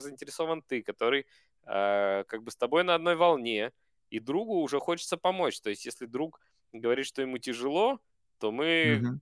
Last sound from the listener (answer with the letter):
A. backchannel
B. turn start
A